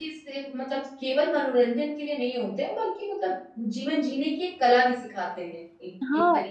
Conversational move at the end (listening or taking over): taking over